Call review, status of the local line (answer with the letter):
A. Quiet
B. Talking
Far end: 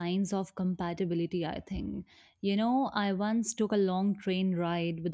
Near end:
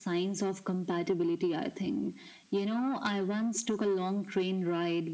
A